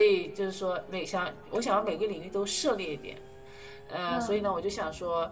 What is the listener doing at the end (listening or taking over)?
listening